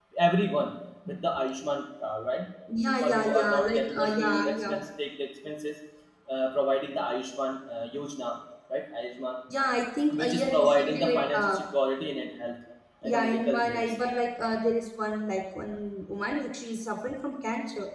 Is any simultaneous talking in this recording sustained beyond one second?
Yes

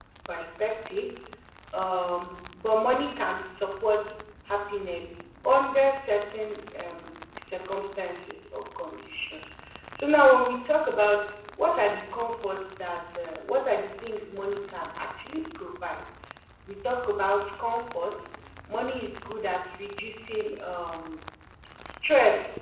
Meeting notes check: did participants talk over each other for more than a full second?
No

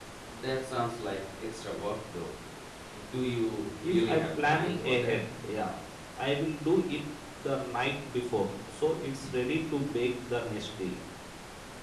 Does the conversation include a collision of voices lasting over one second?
Yes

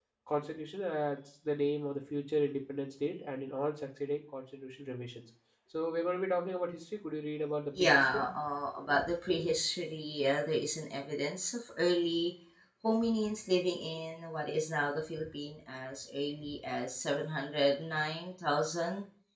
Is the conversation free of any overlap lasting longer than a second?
Yes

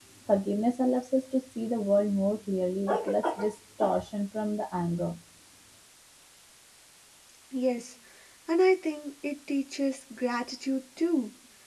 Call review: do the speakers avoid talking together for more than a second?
Yes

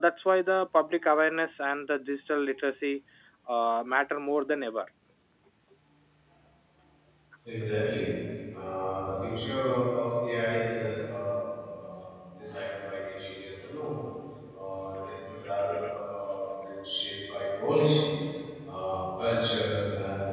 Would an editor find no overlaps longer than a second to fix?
Yes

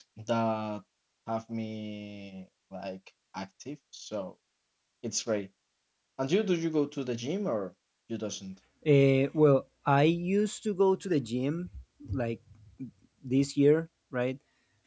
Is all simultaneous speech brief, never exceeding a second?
Yes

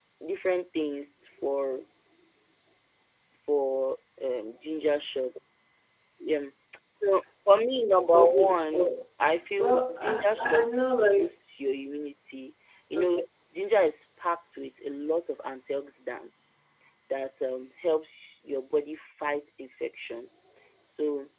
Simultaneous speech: Yes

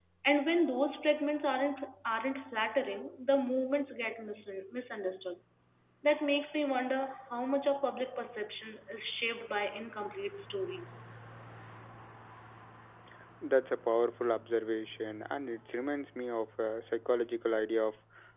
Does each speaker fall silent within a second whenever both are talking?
Yes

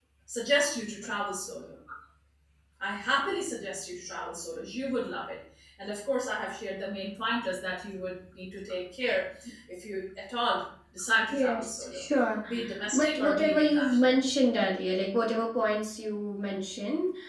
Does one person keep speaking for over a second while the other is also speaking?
Yes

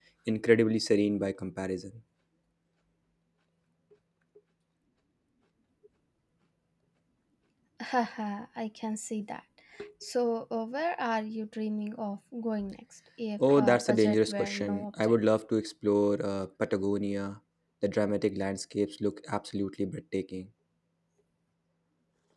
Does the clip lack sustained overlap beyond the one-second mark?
No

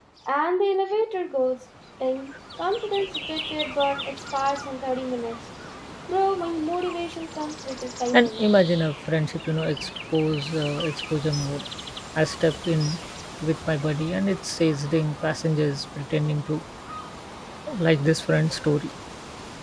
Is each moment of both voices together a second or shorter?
Yes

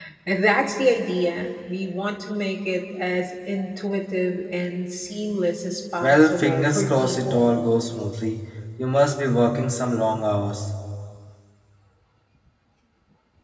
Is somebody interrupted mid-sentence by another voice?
Yes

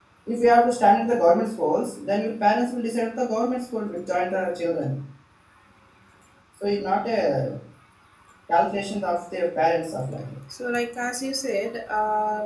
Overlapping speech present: No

